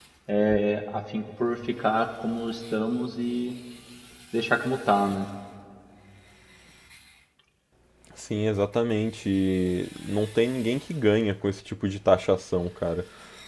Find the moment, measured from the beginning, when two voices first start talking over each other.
none

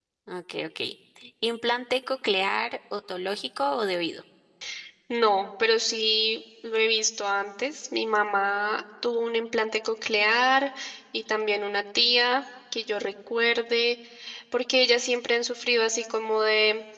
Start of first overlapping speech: none

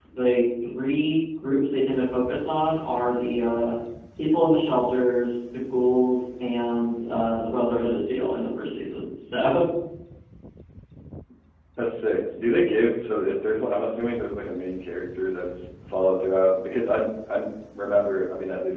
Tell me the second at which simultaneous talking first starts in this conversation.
none

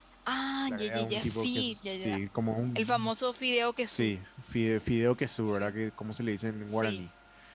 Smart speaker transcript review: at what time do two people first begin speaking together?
0.7 s

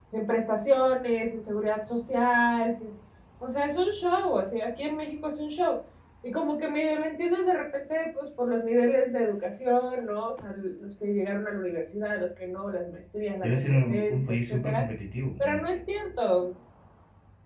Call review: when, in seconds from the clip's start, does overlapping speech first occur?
13.4 s

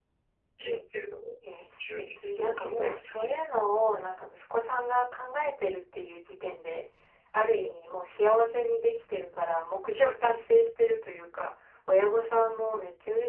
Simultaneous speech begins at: 1.8 s

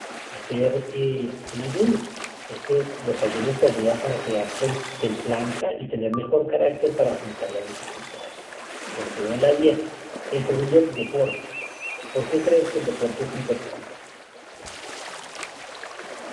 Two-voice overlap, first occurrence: none

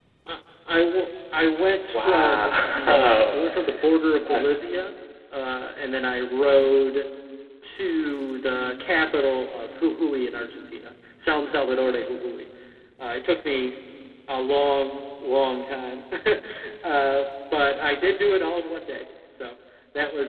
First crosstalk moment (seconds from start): 1.9 s

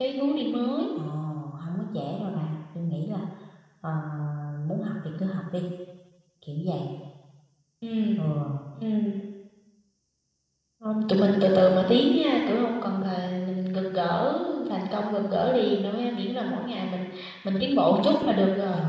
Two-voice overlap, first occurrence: none

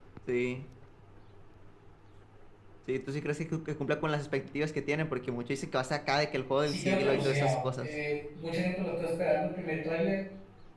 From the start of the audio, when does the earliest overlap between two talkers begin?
6.7 s

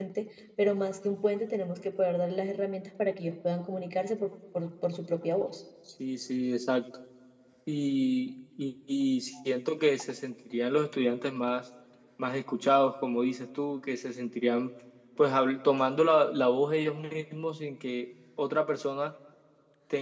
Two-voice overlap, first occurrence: none

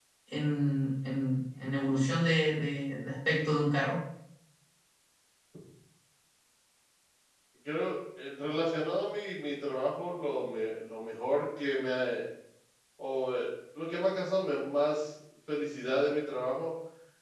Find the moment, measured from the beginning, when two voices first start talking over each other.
none

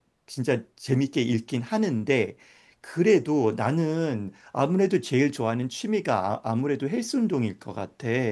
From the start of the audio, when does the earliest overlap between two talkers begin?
none

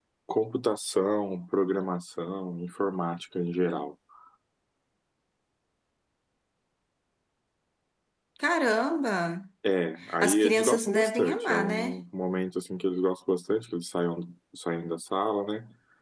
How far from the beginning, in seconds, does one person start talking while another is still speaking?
10.2 s

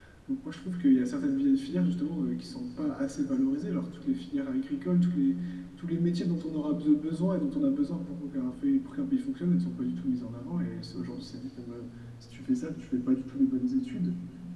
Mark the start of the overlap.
none

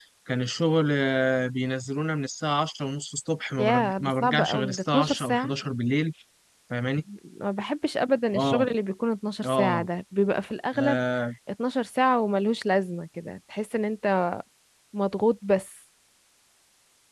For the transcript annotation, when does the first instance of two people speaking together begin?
3.6 s

